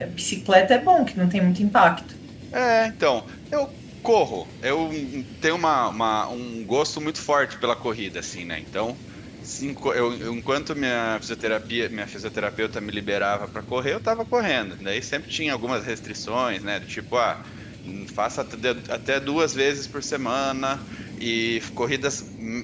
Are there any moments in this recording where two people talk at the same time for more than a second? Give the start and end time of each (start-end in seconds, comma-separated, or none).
none